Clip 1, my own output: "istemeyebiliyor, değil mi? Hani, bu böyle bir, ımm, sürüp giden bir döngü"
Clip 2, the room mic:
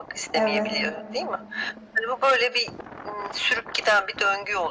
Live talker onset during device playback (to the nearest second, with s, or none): 0 s